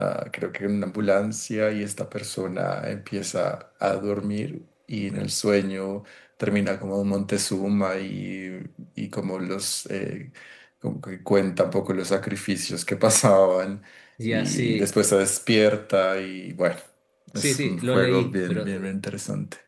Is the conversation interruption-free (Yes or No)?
No